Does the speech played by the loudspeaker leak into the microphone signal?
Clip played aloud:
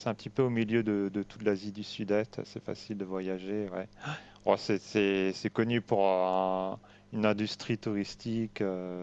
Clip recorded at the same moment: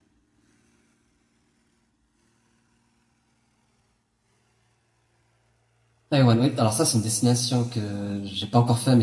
No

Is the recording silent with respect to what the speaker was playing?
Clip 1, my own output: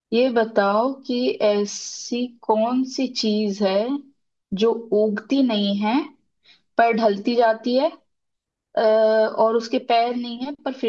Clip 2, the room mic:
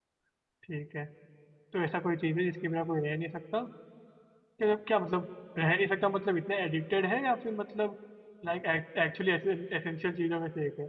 Yes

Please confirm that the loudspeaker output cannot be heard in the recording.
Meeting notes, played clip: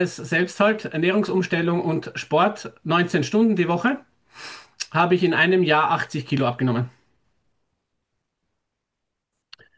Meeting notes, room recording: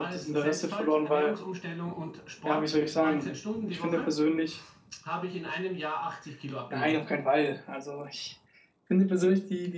No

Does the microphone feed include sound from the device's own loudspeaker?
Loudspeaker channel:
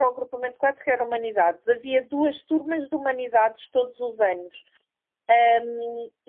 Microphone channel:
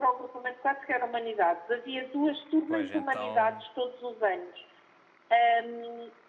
Yes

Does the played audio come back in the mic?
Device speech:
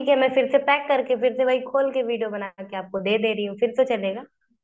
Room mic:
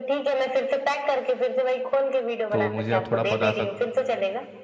Yes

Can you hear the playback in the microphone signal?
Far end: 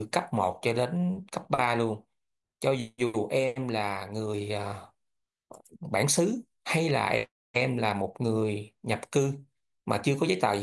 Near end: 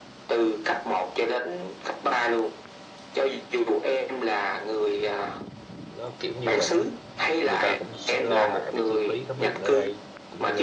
Yes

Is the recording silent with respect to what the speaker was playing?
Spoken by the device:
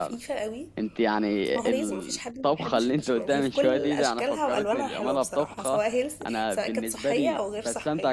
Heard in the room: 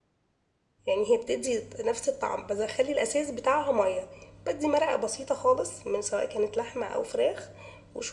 Yes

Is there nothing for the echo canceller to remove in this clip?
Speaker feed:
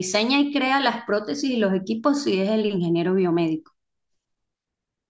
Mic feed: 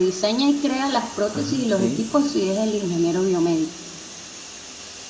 No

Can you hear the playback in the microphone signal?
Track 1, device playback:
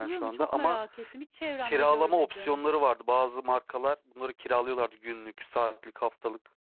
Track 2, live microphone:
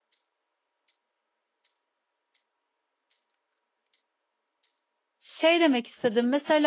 No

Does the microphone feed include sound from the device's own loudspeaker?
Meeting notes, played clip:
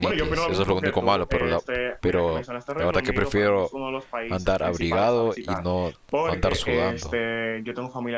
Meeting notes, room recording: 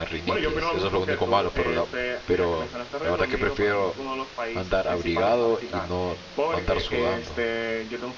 Yes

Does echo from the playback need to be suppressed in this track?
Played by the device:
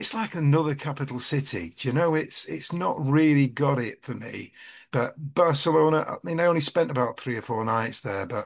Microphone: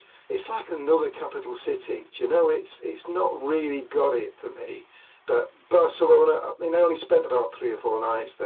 Yes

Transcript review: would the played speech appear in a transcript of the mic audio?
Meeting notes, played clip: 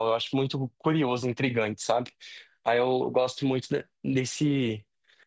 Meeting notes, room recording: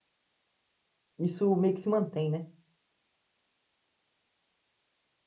No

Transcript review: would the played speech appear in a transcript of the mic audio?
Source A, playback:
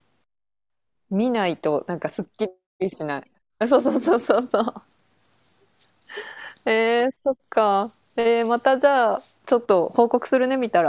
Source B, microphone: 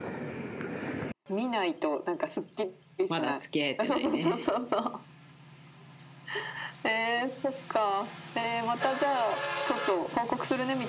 Yes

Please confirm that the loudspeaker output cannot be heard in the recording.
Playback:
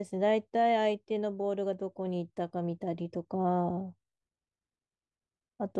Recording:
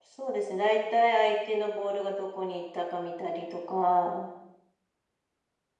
No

